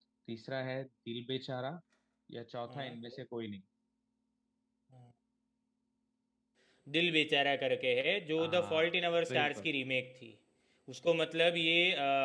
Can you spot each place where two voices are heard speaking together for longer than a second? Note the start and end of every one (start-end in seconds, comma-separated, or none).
8.4-9.7